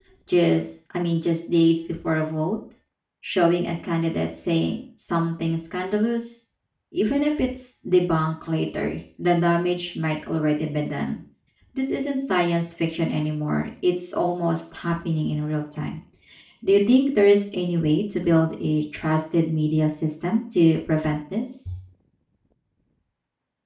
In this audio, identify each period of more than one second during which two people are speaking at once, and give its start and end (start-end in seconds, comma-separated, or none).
none